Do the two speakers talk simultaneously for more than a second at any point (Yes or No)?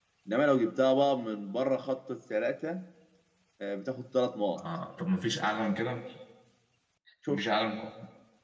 No